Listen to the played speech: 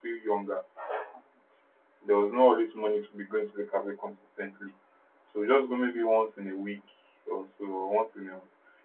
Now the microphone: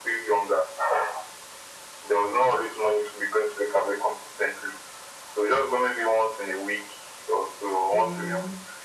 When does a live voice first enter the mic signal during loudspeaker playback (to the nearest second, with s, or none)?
8 s